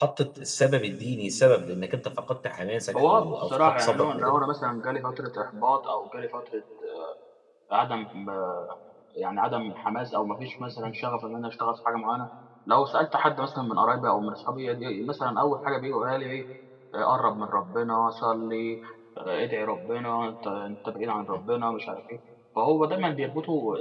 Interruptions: present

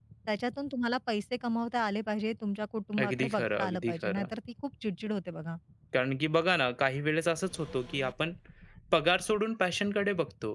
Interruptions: present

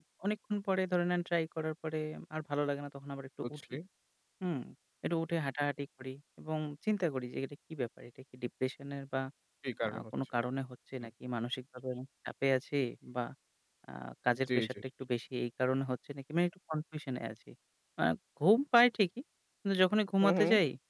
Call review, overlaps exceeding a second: none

